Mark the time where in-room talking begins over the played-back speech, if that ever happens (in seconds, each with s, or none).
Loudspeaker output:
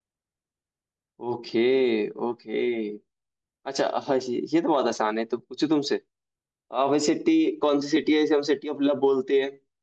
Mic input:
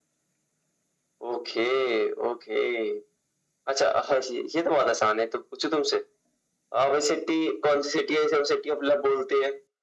none